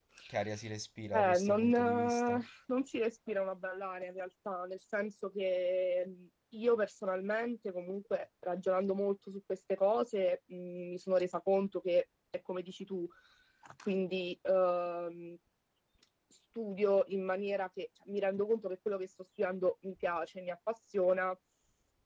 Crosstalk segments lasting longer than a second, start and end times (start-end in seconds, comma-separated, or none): 1.1-2.4